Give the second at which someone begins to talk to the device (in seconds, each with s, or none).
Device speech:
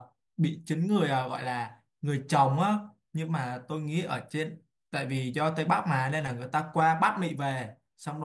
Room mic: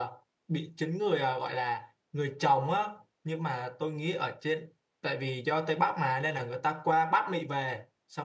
none